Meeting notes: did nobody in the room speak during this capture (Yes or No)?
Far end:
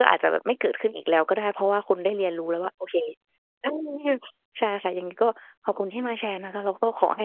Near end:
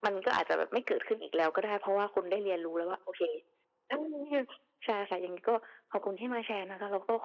Yes